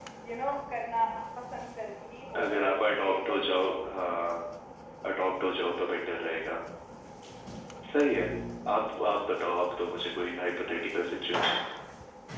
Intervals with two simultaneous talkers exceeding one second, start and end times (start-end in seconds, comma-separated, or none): 2.4-3.8